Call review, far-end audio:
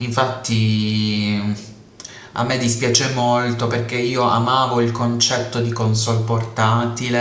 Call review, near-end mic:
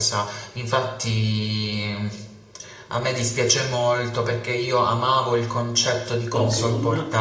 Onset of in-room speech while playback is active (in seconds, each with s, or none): 6.3 s